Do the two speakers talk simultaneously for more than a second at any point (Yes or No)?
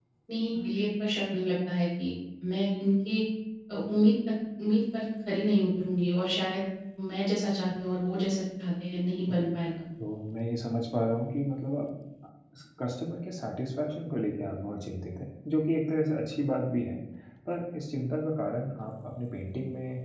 No